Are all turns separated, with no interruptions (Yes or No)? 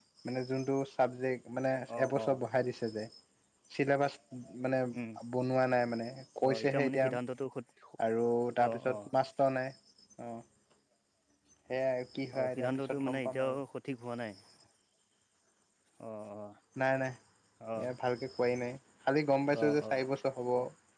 No